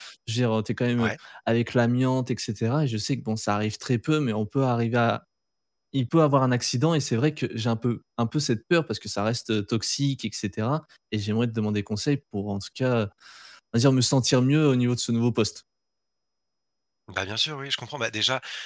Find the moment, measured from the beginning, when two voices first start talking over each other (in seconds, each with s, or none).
none